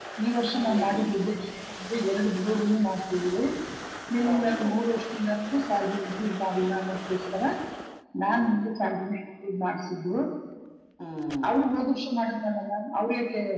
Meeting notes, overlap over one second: none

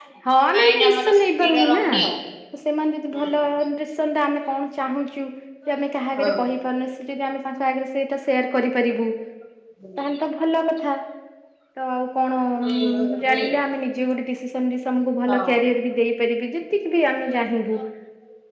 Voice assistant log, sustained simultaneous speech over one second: present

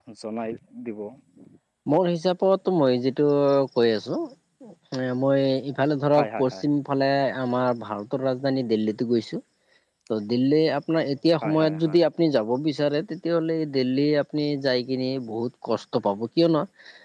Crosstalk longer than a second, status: none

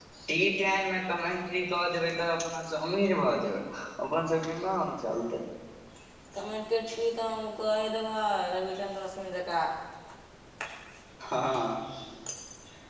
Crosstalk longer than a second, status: none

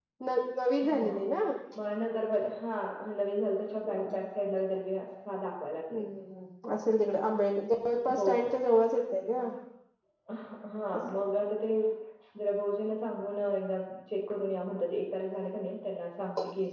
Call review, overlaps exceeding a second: none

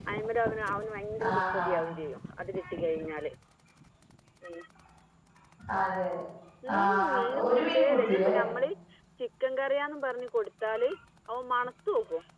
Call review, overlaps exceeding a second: present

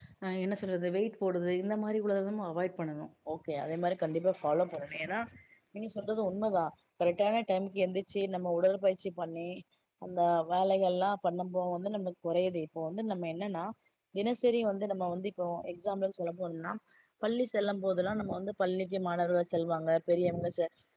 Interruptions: none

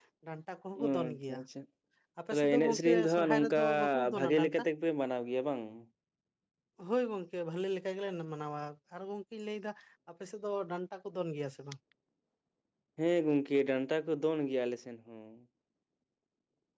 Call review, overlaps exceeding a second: present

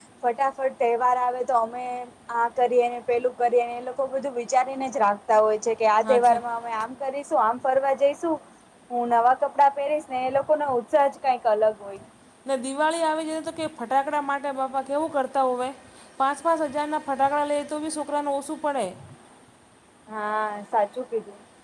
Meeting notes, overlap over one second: none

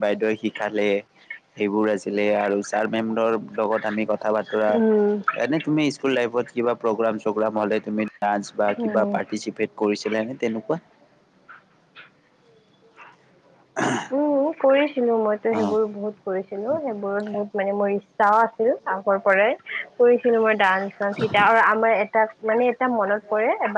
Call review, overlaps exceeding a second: none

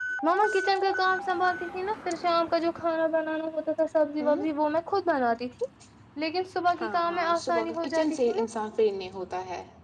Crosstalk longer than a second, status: present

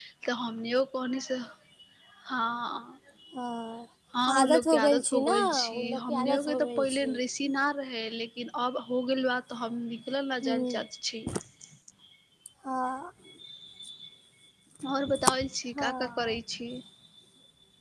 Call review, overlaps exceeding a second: present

